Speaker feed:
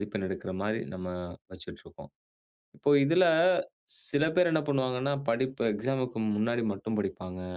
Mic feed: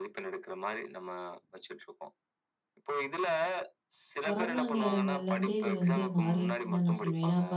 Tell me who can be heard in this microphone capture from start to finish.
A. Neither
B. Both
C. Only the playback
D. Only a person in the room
B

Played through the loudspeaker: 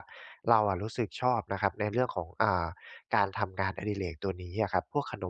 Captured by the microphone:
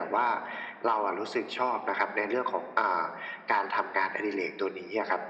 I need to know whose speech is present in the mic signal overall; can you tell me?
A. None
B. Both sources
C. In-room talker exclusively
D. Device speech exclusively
D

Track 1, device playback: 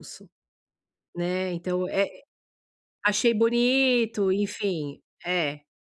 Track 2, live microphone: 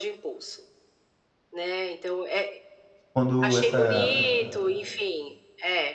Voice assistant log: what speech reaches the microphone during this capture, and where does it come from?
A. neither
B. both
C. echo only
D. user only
B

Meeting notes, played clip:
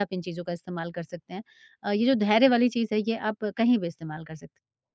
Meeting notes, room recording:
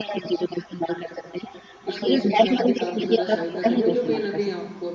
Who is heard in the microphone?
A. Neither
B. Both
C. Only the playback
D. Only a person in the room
B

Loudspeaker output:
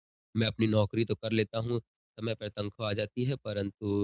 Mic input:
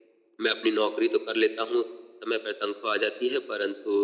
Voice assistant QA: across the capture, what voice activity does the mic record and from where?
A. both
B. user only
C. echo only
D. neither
C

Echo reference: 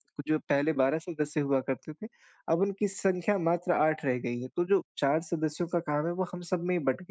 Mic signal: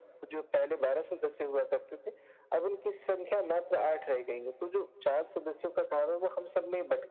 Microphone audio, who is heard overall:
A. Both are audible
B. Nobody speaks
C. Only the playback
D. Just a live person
C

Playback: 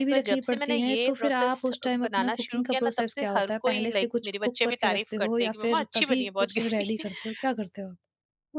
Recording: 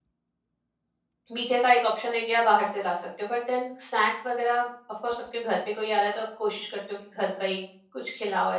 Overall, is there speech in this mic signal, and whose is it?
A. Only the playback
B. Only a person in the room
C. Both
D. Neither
B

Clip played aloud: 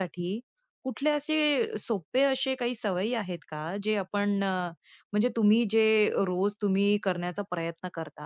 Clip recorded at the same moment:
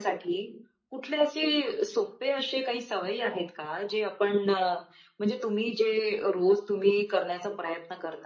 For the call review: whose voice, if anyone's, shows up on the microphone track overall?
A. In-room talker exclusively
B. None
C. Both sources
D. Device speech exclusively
D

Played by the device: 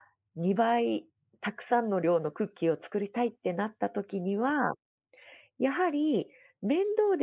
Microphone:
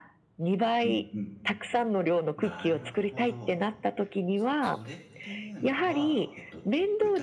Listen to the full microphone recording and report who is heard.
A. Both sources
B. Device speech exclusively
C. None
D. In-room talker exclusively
A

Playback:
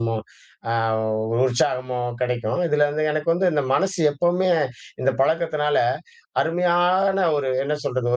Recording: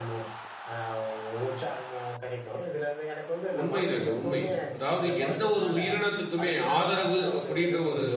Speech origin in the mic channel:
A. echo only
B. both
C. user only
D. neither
B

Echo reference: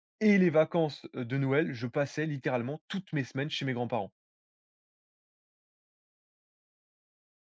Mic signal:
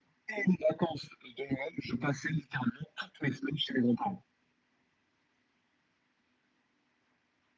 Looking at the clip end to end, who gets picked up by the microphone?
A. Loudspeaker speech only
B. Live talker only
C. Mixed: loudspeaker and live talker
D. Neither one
A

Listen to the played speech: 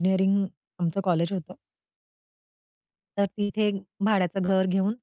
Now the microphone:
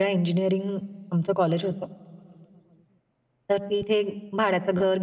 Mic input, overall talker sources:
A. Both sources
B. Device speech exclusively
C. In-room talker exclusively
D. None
B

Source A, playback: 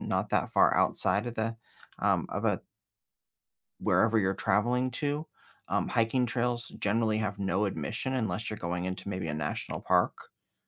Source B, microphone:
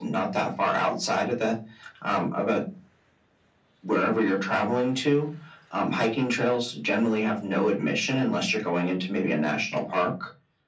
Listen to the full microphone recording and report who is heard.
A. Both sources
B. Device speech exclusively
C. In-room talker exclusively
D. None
B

